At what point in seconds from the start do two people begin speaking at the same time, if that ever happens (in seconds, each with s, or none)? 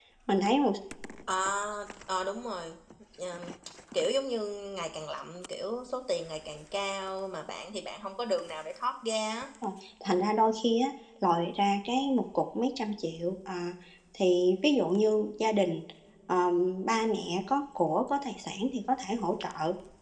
none